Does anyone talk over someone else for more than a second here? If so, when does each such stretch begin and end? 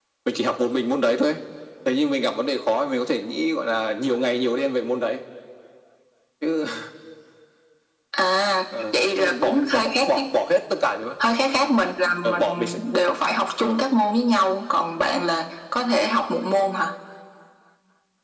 8.9-10.2

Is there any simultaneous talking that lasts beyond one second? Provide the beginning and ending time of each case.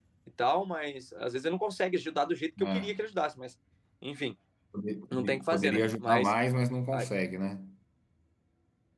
5.1-6.3

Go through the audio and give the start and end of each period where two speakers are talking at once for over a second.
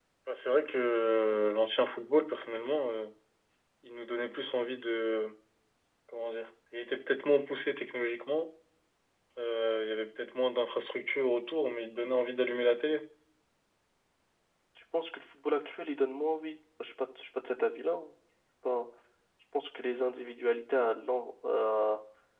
none

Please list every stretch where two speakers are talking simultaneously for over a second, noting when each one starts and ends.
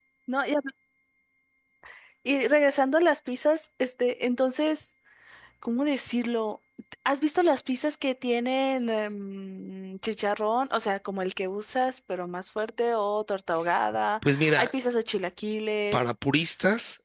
none

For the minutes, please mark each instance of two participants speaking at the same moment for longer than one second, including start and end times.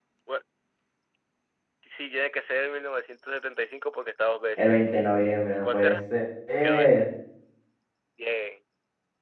none

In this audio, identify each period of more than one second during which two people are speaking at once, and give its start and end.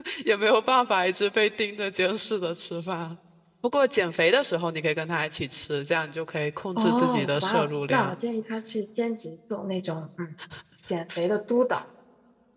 6.8-8.2

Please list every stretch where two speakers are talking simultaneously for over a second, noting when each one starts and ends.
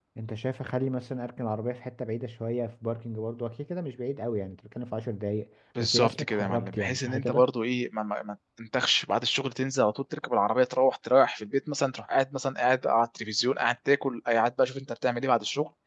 5.8-7.5

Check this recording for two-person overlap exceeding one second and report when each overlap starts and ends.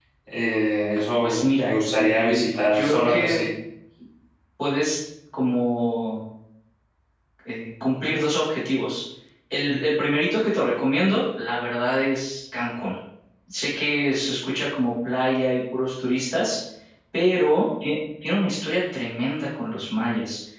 1.2-3.4

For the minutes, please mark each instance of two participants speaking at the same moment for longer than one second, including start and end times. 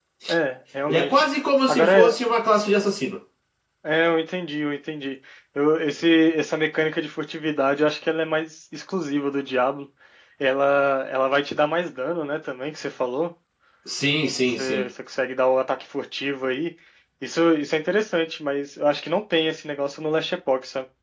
none

